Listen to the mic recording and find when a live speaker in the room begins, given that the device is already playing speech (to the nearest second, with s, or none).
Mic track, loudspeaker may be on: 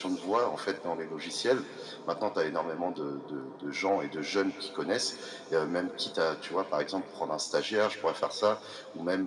none